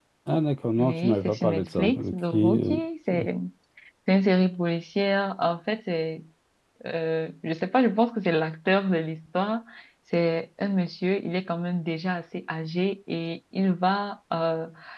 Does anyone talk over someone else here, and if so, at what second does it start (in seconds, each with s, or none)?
0.8 s